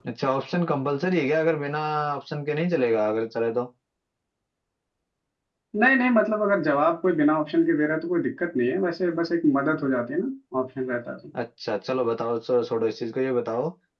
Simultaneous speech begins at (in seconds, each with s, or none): none